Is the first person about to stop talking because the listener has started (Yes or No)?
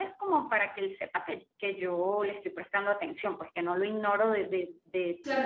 Yes